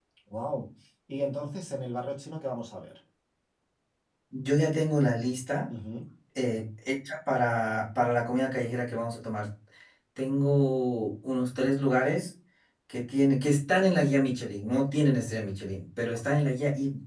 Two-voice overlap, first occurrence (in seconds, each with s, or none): none